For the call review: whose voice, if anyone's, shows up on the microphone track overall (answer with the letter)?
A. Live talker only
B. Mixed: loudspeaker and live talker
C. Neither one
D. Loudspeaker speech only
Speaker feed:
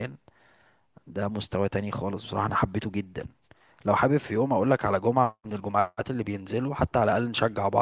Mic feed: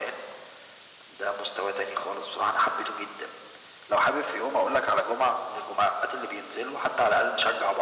D